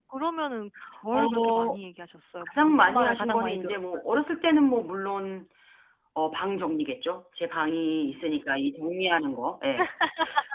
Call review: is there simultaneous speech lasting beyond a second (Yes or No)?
Yes